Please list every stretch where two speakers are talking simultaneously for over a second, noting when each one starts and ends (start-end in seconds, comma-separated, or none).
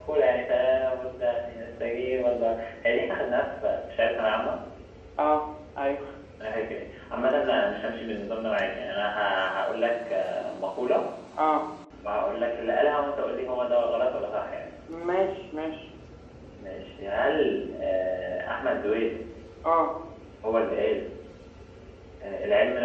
none